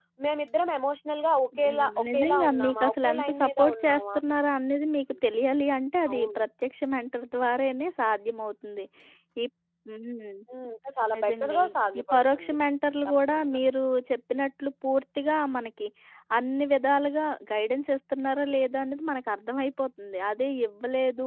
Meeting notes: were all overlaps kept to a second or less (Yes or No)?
No